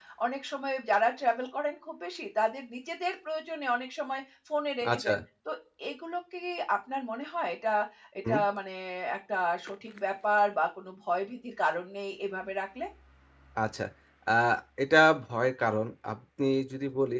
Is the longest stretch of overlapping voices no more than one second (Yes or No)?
Yes